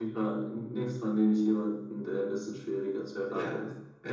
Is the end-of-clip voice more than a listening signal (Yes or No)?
Yes